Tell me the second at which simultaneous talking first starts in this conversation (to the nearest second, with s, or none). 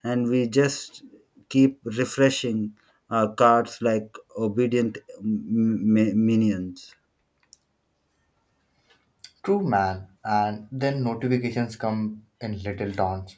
none